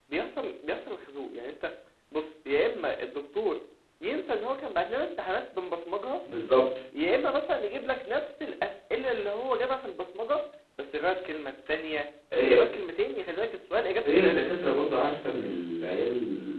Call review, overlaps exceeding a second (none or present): none